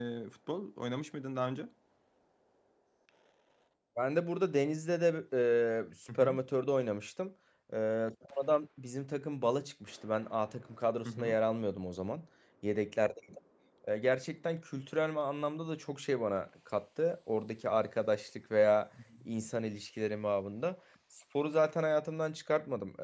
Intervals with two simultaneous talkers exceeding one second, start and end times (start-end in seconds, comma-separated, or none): none